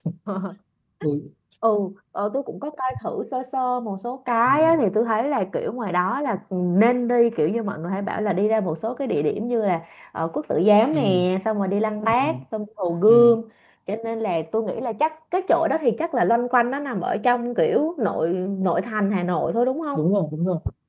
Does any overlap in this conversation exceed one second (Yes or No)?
No